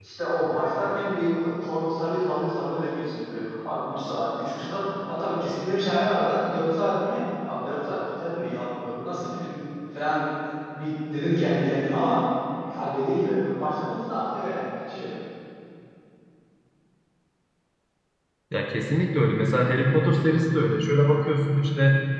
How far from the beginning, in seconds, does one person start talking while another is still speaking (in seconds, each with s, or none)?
none